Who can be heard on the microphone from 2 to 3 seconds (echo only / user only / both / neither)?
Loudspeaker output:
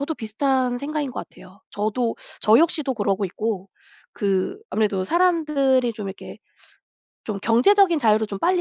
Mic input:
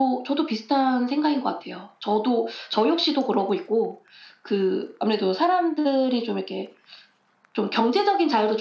echo only